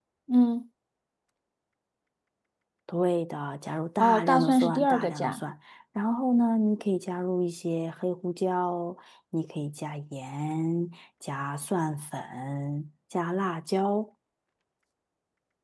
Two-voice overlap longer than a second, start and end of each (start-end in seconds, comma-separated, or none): 4.0-5.4